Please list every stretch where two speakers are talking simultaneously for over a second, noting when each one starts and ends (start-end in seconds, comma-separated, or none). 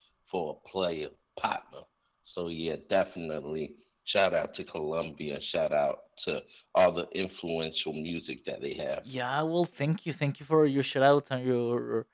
none